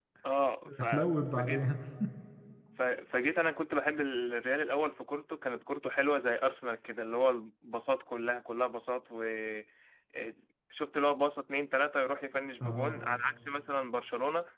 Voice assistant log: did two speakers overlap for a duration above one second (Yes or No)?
No